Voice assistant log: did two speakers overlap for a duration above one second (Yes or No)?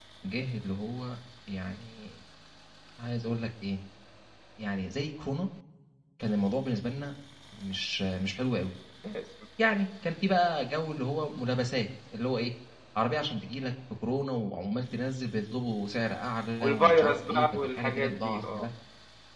Yes